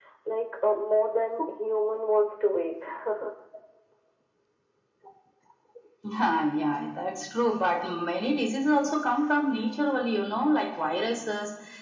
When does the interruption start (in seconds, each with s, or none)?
none